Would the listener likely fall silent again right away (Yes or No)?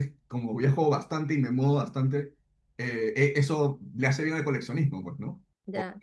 No